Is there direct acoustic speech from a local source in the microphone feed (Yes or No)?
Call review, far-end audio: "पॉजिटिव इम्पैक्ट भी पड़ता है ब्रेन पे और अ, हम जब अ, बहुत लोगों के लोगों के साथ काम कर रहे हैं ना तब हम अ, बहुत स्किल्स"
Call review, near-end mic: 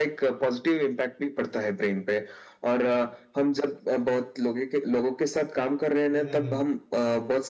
Yes